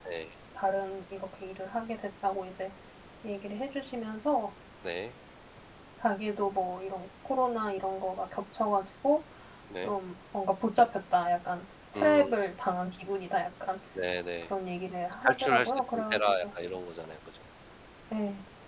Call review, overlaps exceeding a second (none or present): present